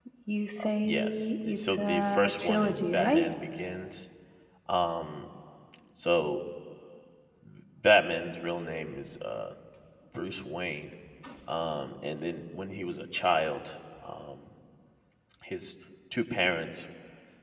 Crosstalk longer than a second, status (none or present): present